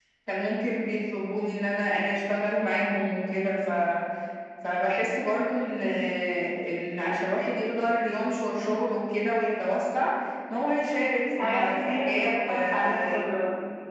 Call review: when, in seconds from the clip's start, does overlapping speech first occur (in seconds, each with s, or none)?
11.4 s